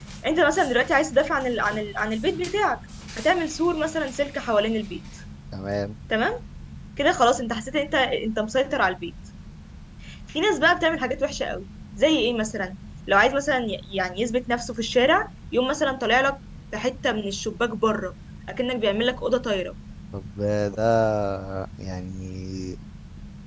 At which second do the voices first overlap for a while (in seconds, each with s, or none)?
none